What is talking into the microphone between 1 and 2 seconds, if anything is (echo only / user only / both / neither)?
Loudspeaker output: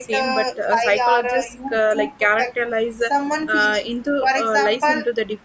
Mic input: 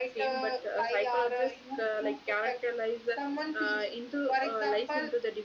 echo only